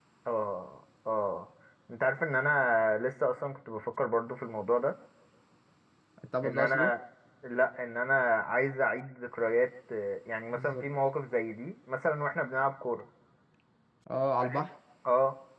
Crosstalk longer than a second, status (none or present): none